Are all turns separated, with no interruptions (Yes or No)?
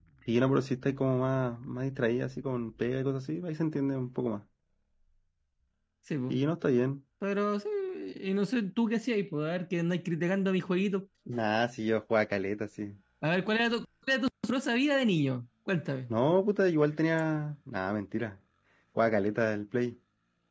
Yes